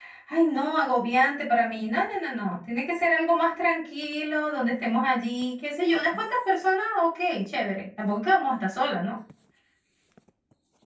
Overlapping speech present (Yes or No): No